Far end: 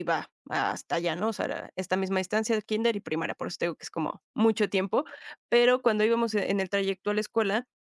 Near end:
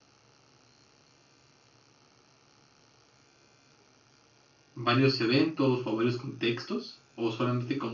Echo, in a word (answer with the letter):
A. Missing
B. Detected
A